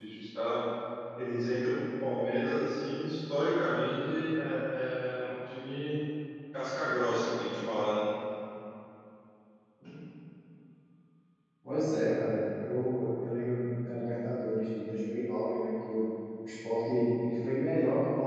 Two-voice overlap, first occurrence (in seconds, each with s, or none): none